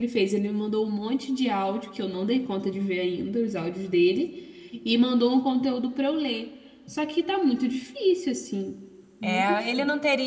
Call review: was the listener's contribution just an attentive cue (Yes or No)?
No